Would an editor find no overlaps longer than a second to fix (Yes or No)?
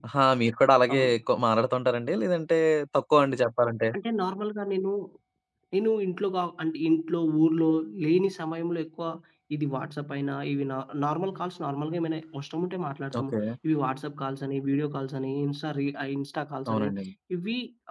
Yes